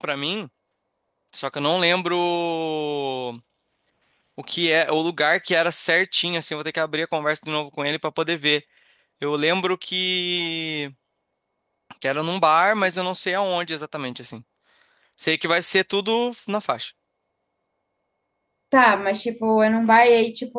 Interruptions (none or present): none